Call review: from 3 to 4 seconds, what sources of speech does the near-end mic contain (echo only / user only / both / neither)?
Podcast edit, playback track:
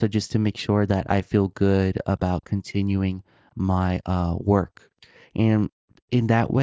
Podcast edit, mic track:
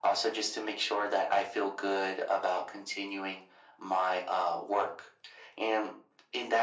echo only